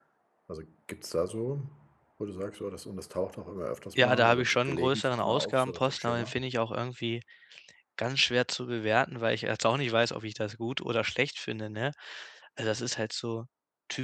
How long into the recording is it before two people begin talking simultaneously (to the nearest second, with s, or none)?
4 s